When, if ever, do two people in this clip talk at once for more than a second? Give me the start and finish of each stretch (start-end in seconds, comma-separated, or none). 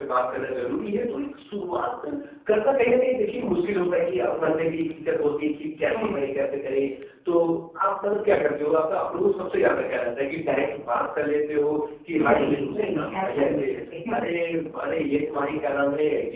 12.2-13.6